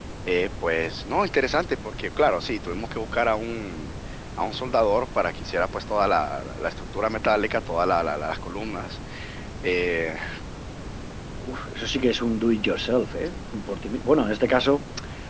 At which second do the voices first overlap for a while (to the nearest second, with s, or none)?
none